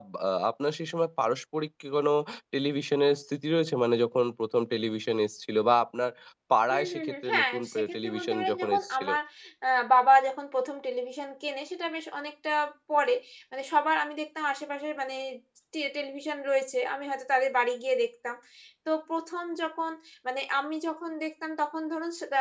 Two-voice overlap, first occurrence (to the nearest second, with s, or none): 7 s